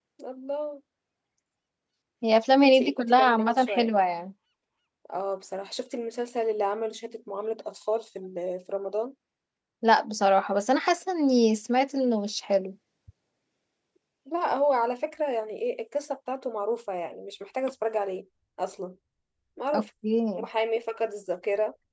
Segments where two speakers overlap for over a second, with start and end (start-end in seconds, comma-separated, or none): 2.6-3.9